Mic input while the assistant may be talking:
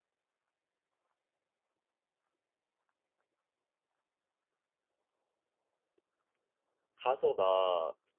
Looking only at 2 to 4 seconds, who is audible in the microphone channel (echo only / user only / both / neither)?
neither